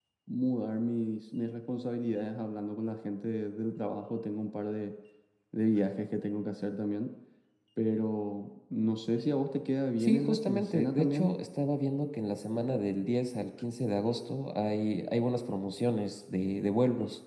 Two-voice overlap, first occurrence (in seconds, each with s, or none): 10.0 s